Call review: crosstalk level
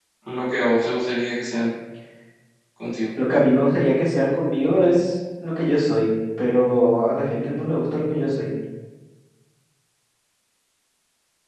none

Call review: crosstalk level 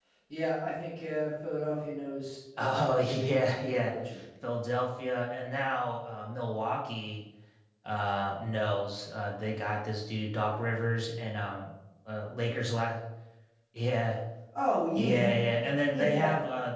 present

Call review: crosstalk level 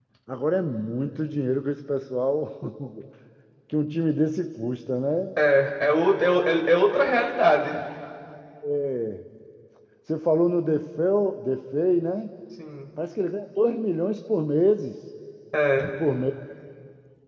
none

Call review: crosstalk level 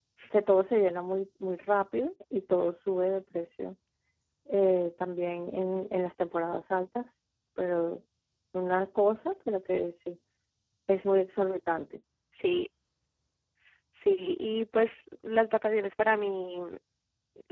none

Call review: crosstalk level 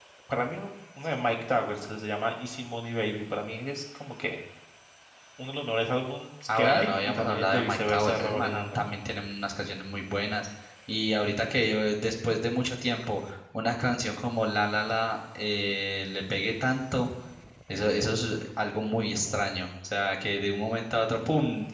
present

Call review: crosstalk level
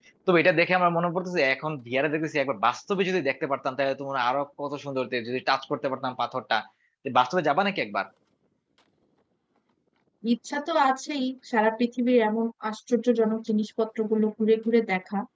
none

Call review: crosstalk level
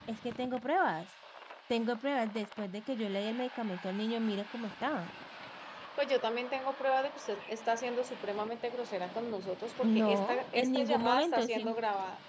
present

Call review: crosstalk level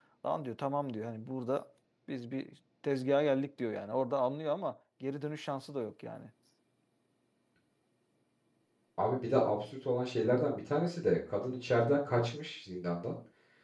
none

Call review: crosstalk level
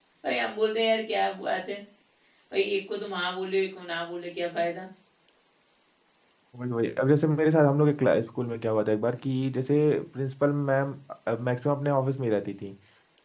none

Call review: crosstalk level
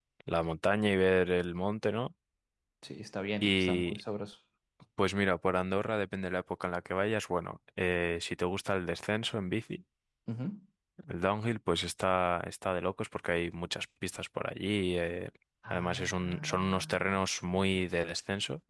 present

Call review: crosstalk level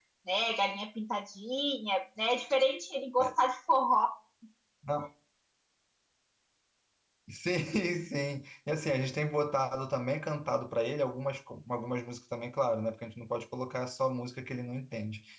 none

